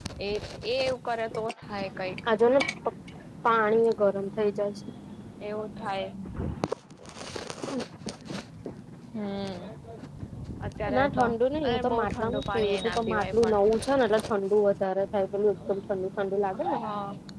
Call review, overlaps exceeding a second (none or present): present